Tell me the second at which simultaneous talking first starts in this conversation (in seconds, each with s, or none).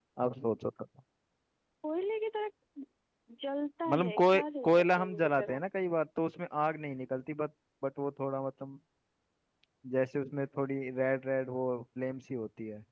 3.9 s